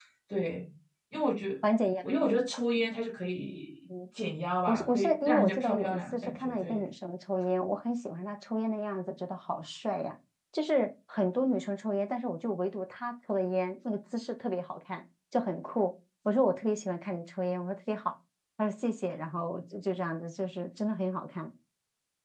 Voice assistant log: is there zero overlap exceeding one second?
No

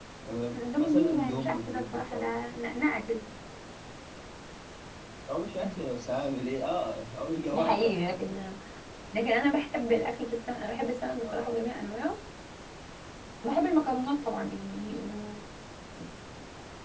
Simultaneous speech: Yes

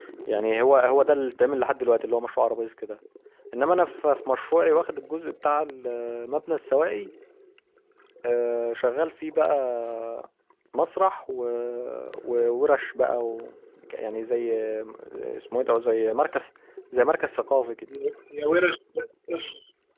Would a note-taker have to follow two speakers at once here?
No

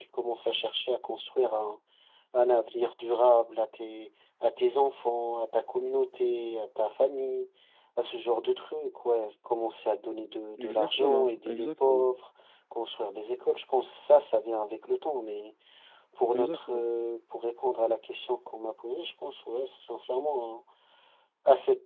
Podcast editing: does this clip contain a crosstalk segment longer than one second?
Yes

